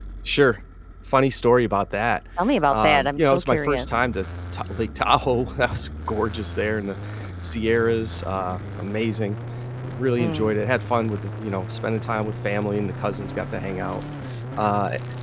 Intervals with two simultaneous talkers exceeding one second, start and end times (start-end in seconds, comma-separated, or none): 2.7-3.9